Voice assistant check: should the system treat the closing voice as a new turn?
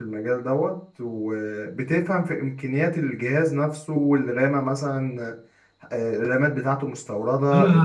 Yes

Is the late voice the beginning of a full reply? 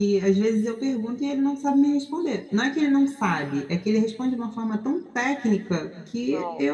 No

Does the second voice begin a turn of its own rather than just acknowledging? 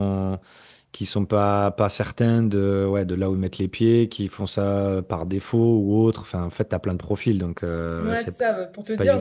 Yes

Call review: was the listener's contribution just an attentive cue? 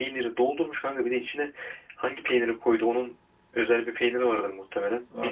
Yes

